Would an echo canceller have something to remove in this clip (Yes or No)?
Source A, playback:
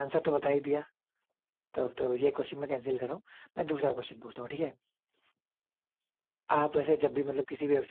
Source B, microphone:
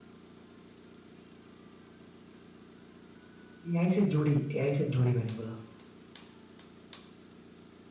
No